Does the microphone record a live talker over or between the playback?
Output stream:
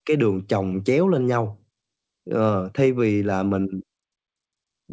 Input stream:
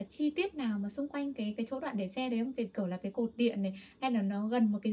Yes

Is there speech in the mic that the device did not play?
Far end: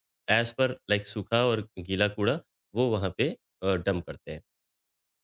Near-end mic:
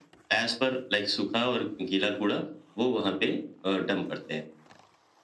No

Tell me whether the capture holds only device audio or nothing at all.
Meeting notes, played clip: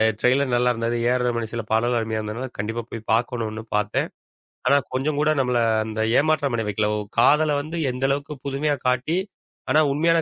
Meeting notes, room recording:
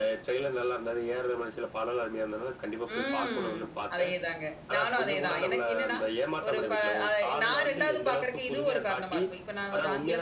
No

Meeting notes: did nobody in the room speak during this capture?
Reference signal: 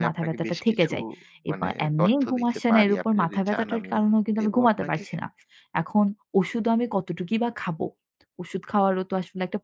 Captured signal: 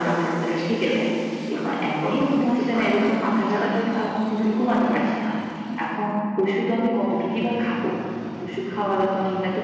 Yes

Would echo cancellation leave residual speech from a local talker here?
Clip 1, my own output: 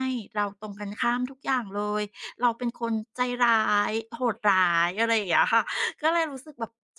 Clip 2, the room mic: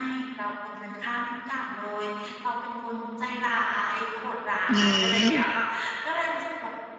Yes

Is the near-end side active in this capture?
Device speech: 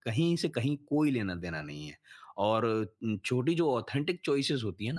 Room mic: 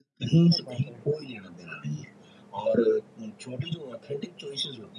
Yes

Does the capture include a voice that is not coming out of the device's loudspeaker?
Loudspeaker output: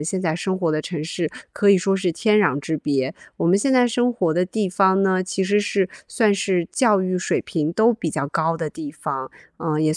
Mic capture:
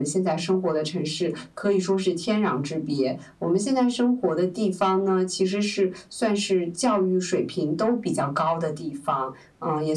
No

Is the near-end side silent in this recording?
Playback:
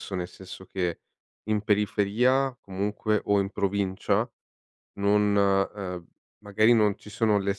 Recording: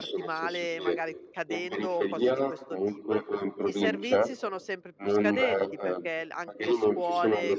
No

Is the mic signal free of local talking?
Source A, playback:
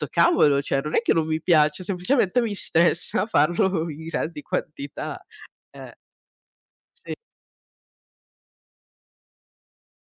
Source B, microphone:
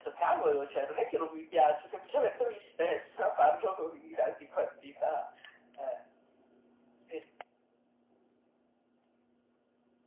Yes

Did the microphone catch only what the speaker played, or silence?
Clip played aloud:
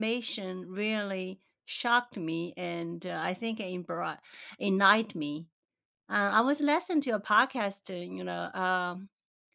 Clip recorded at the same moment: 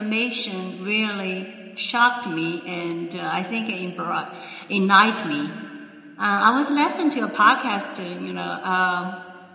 Yes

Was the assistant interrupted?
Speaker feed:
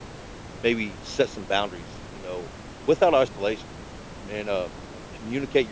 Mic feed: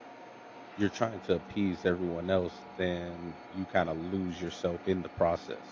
Yes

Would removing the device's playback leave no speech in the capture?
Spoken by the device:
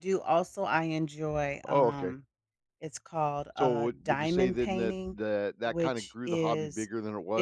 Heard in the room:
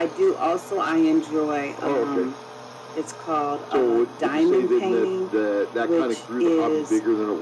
Yes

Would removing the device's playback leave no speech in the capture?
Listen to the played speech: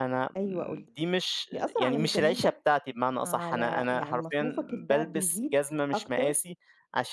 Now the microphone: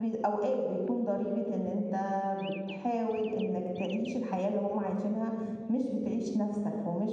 No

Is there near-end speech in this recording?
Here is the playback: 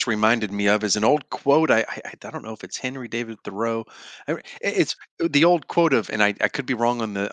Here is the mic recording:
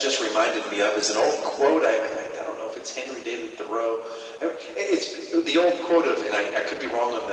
No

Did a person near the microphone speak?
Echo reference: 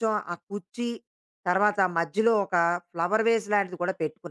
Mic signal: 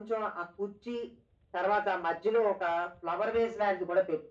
No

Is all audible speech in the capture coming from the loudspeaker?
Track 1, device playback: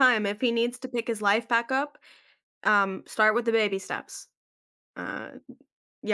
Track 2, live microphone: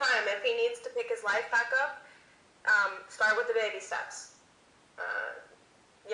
Yes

